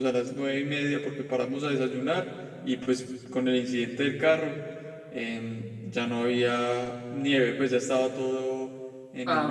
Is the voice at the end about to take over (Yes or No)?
Yes